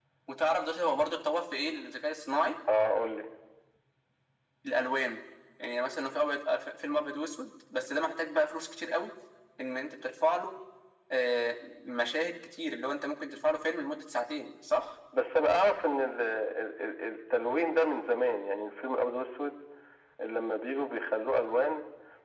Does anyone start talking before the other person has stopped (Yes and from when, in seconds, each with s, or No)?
No